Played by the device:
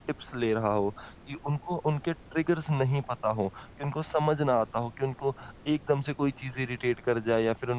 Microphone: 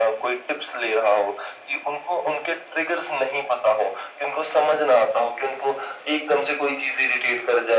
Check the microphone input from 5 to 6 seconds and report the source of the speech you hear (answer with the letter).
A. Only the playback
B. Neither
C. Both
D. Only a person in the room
A